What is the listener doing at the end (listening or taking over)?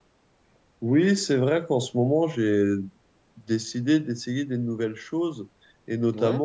listening